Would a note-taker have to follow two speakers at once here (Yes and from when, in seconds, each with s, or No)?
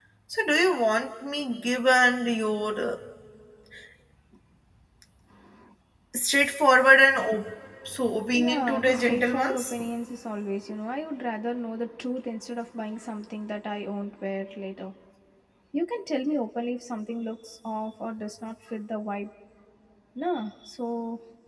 Yes, from 8.3 s